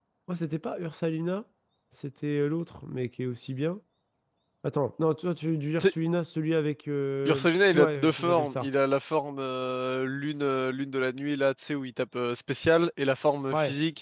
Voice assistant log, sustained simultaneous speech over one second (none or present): present